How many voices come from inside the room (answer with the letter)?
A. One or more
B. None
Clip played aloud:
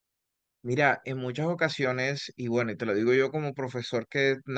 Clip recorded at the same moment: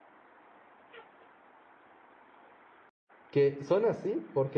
A